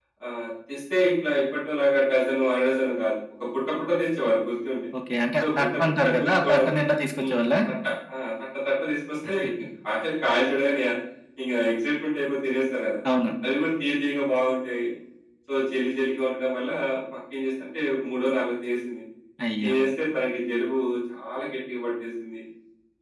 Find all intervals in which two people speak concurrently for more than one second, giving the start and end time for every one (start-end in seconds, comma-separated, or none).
5.4-6.7